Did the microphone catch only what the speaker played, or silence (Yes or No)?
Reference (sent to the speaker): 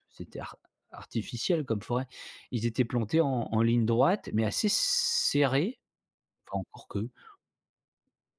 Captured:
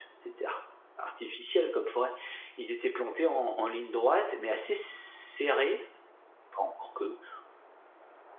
Yes